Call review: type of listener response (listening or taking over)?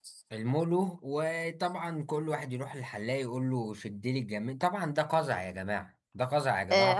taking over